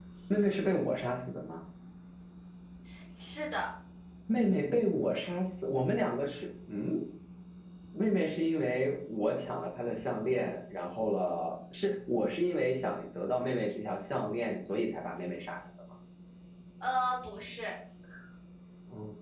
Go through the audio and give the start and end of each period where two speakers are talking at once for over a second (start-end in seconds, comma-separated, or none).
none